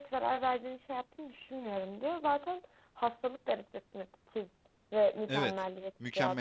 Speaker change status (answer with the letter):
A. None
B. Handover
B